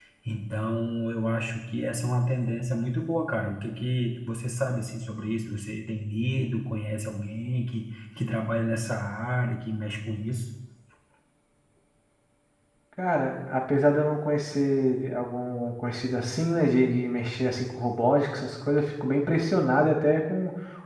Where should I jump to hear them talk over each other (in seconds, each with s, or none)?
none